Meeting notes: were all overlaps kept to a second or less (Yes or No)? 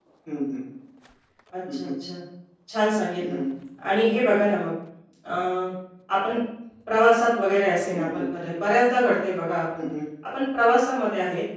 Yes